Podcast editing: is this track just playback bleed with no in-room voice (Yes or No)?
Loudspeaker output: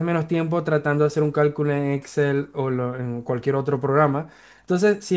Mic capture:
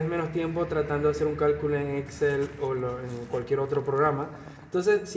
Yes